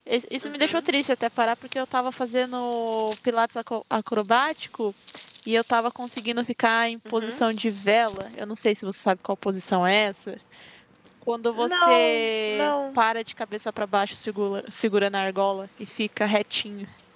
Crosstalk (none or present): present